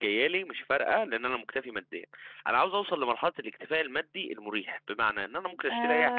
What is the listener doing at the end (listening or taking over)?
taking over